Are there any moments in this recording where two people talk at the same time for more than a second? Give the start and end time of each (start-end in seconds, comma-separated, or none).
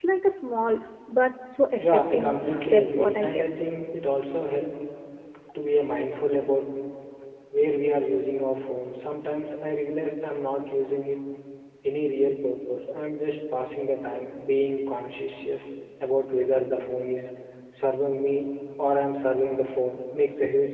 1.8-3.4